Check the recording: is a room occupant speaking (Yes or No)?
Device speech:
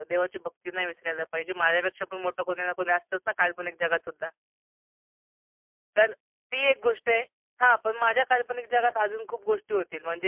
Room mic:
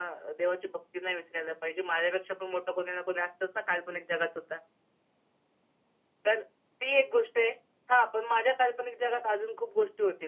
No